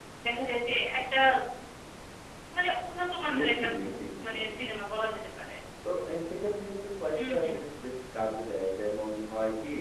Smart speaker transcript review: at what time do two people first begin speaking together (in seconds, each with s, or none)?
3.4 s